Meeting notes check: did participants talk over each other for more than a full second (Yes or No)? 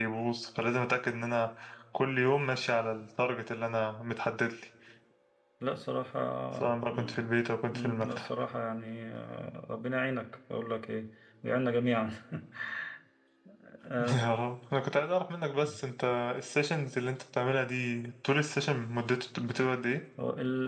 No